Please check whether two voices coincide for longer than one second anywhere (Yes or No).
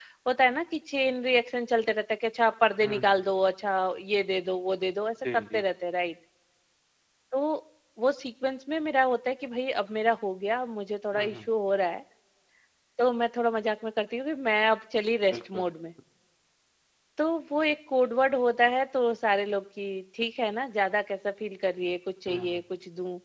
No